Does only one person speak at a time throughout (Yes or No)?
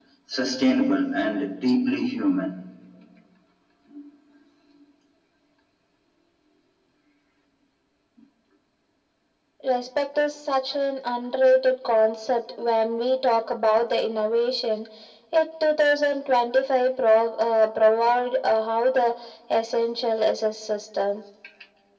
Yes